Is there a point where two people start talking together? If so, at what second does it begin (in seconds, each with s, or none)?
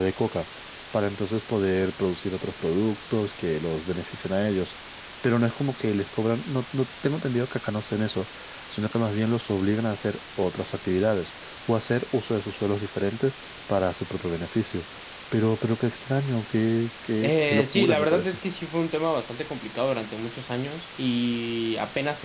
17.2 s